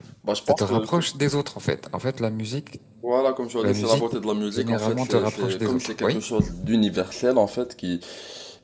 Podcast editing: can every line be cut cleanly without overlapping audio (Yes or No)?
No